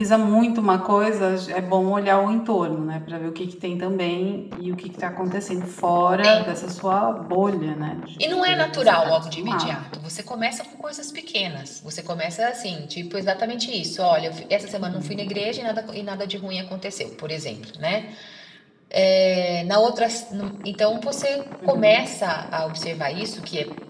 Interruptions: present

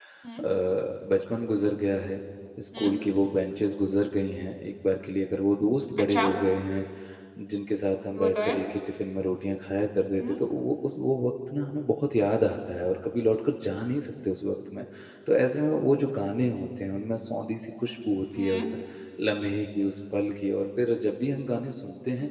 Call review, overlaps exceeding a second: none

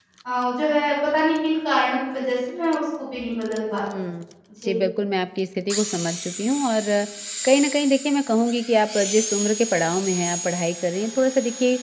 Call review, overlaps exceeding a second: none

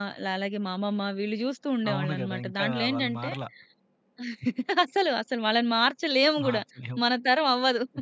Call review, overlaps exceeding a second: present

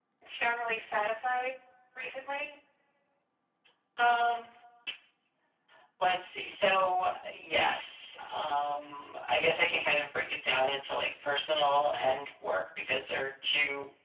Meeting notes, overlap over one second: none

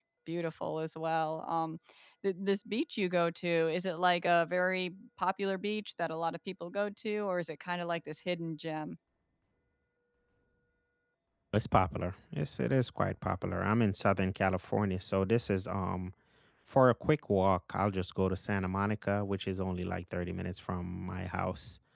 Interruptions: none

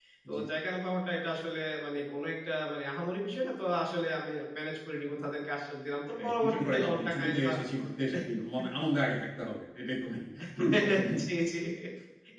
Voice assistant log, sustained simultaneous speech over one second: present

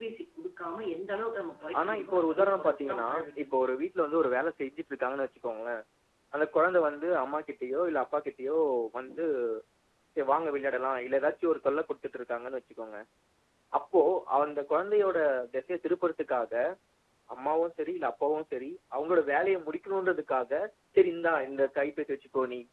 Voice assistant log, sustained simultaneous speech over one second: present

